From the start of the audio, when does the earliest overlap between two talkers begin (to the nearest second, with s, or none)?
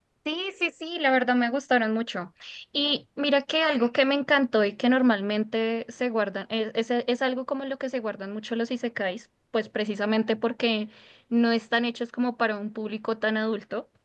none